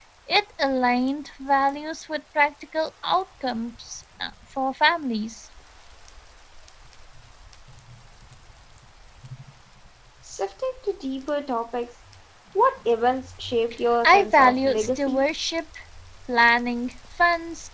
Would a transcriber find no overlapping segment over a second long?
No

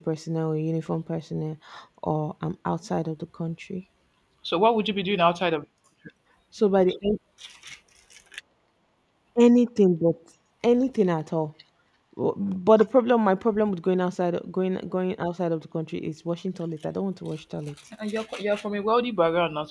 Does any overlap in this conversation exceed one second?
No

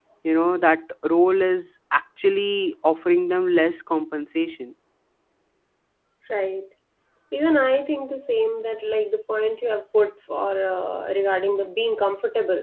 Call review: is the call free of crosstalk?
Yes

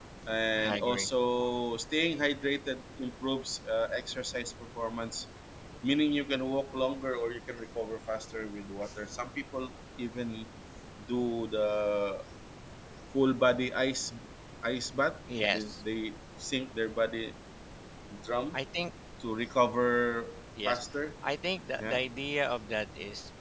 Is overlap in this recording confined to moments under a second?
Yes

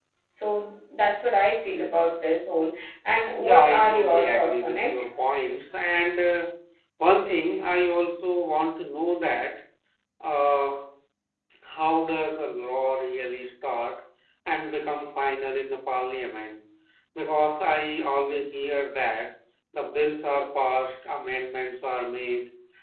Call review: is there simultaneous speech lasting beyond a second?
Yes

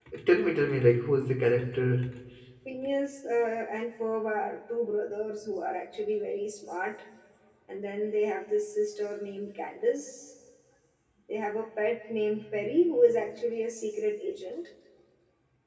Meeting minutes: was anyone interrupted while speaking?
No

